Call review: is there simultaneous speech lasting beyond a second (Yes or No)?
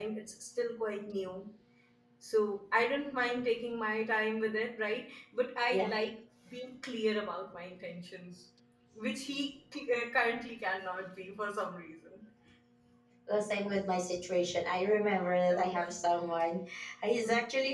No